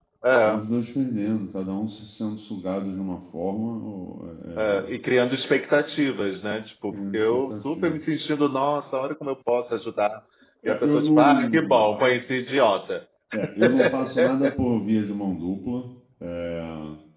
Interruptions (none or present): present